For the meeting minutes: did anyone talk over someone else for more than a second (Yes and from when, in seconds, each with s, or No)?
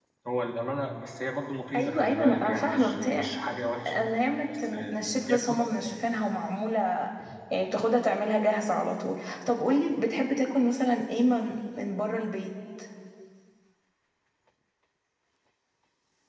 Yes, from 1.8 s